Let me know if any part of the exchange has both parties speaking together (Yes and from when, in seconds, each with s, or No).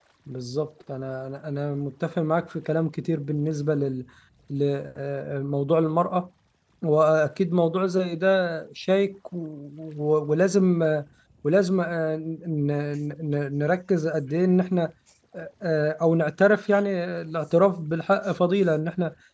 No